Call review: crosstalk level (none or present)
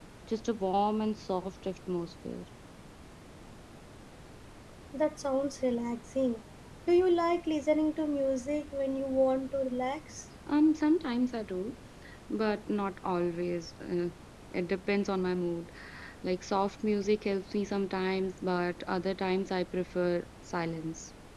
none